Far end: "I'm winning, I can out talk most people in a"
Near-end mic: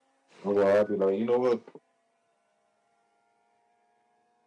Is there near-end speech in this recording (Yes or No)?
Yes